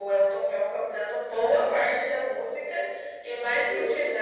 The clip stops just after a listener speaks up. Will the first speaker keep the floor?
Yes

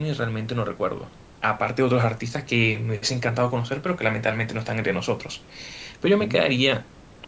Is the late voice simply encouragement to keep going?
Yes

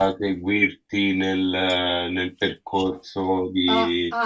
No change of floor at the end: No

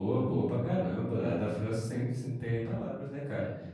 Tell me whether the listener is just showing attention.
Yes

